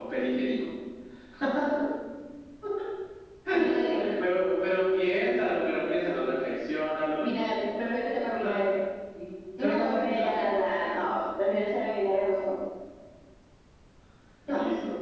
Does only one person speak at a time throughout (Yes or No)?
No